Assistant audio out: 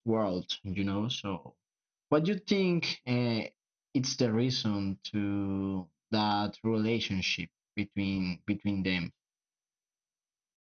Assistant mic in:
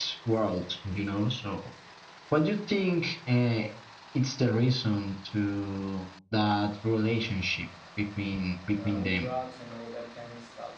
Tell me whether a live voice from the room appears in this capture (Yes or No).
Yes